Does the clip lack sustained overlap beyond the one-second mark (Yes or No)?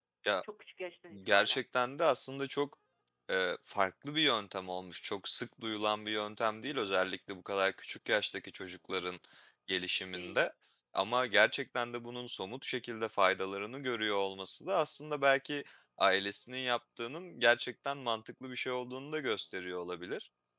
Yes